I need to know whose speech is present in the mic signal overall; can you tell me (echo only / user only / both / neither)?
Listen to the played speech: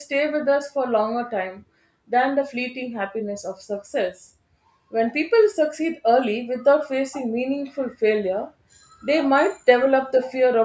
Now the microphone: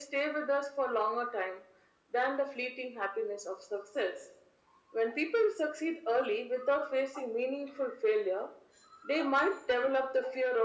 echo only